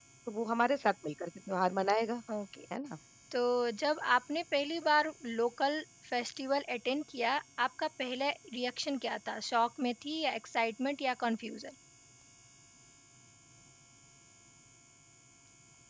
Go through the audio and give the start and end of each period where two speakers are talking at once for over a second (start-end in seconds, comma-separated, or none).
none